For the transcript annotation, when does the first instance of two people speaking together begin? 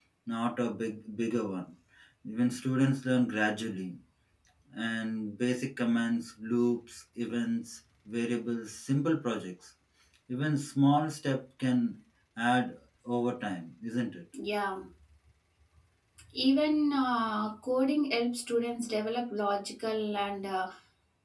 none

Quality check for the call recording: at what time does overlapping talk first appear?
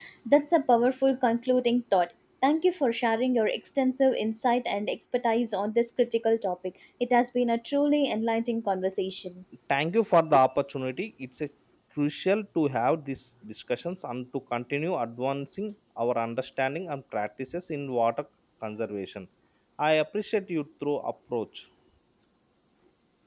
none

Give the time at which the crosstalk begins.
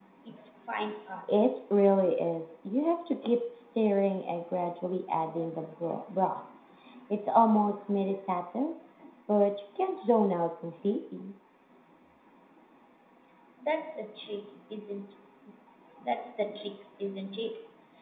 none

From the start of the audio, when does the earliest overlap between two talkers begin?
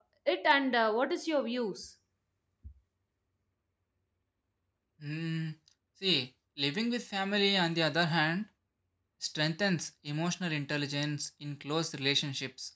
none

